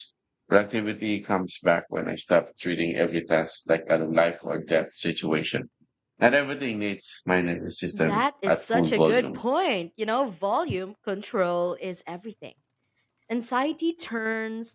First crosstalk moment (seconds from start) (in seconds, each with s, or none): 7.9 s